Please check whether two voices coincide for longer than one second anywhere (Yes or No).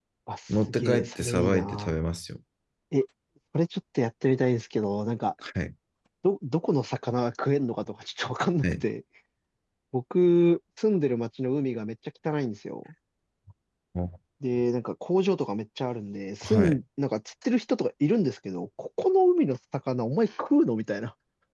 Yes